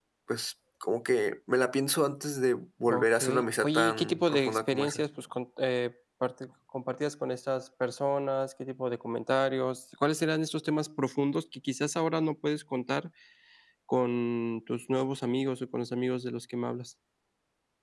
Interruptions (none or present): present